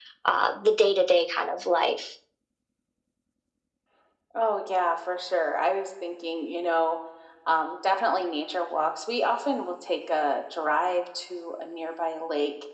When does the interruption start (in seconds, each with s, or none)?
none